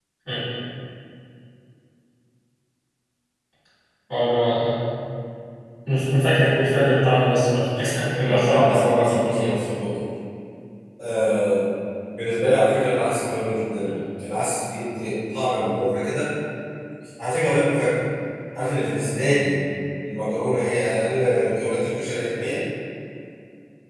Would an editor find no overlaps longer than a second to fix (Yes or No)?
No